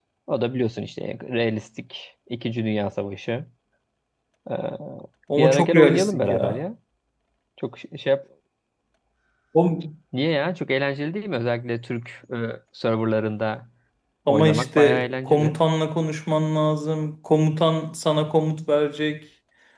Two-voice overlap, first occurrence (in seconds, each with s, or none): 5.4 s